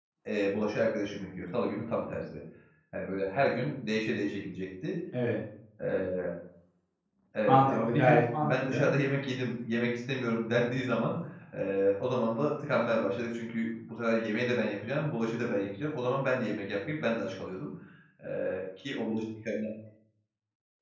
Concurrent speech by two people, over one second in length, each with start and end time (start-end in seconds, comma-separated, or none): 7.4-8.9